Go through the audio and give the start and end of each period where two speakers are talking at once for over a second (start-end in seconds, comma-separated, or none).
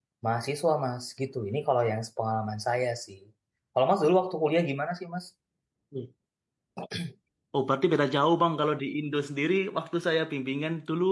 none